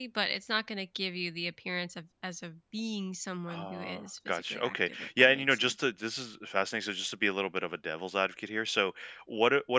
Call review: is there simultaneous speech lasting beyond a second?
Yes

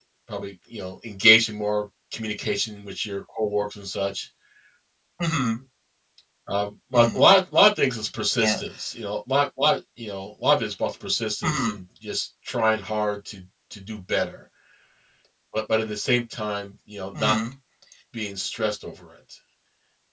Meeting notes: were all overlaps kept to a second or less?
Yes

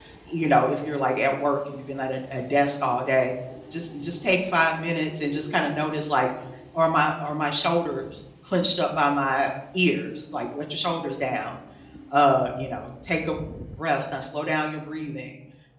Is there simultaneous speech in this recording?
No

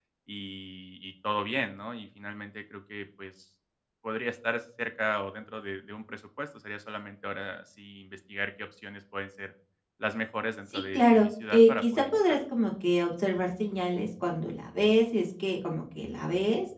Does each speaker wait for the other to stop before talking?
No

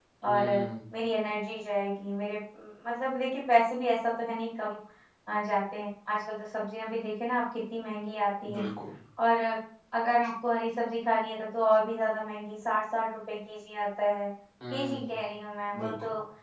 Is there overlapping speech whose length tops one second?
No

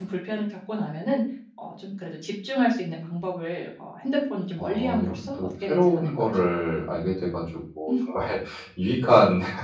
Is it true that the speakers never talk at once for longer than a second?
No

